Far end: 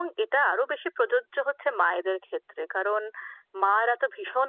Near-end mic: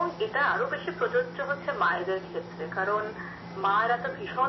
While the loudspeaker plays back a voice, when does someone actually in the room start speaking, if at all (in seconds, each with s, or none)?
none